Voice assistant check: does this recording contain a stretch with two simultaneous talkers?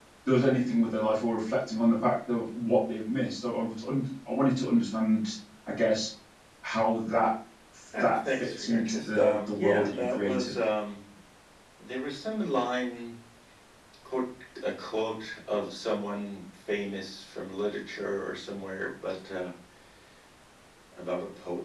Yes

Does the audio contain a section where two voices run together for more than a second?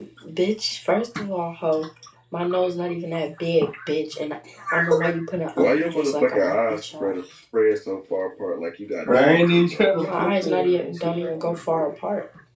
Yes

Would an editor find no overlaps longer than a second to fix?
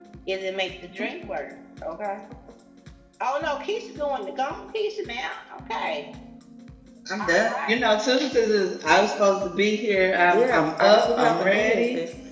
No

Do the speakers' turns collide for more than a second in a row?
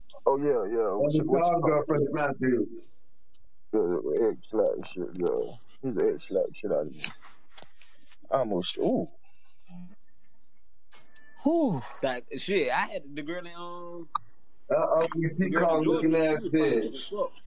Yes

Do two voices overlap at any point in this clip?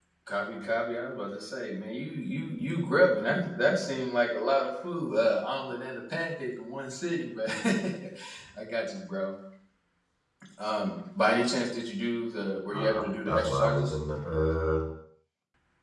Yes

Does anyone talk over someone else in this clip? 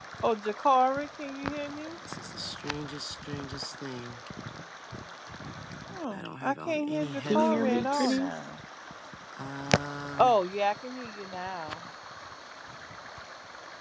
Yes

